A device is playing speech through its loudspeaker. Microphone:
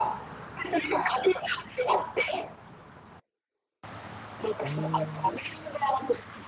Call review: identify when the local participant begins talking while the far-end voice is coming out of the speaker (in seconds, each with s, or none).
4.6 s